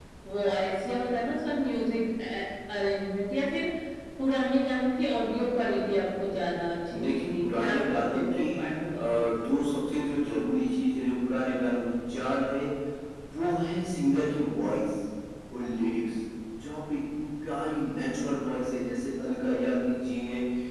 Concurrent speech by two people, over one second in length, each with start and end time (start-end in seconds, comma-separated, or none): 6.9-8.4